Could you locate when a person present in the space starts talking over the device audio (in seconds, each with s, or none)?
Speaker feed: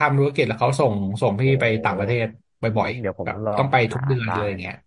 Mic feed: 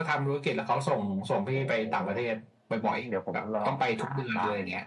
none